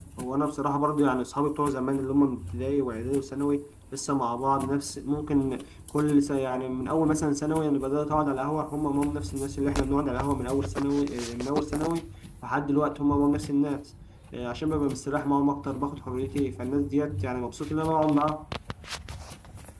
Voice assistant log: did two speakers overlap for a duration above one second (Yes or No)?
No